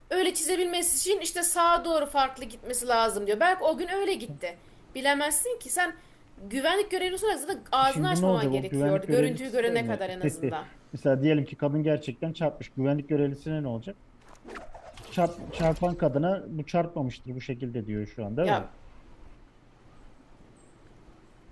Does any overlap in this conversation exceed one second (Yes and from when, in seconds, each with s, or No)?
Yes, from 7.8 s